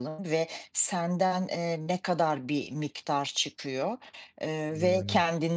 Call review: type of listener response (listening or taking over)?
listening